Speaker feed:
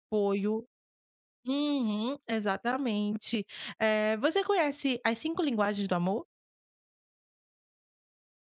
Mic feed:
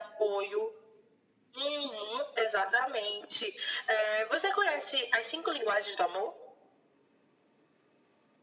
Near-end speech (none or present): none